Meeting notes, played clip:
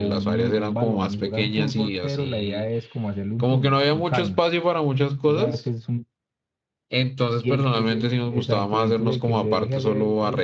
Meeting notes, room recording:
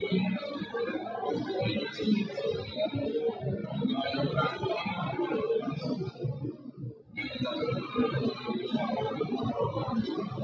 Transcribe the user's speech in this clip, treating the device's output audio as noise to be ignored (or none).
none